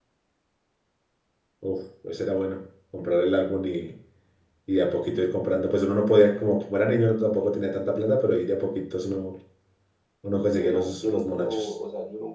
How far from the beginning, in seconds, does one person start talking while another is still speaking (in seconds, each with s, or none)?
10.3 s